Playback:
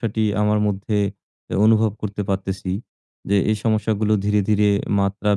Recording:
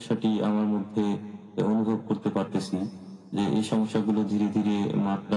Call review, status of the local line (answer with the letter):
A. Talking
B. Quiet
B